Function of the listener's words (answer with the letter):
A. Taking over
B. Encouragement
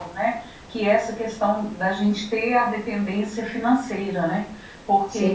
B